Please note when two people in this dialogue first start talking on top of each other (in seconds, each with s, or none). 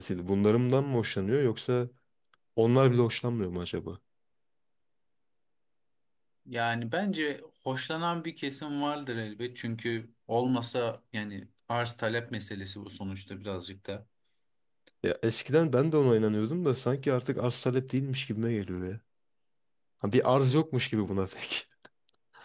none